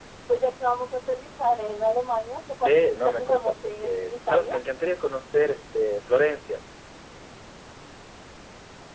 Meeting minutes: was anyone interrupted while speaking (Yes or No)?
Yes